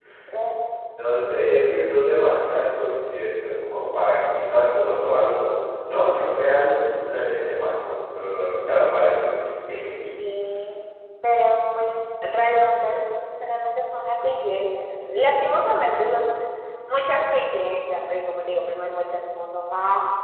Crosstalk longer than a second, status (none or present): none